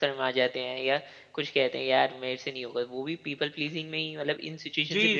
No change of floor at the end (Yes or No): No